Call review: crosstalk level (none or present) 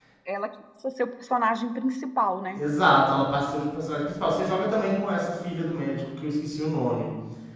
none